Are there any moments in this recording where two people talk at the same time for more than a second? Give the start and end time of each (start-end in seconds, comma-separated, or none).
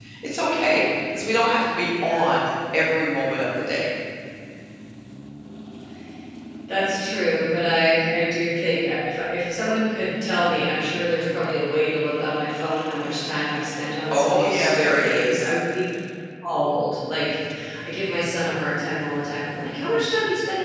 14.1-15.5